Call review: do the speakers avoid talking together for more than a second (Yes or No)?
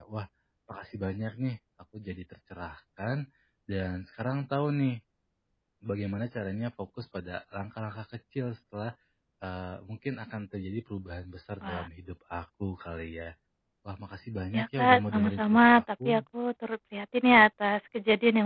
No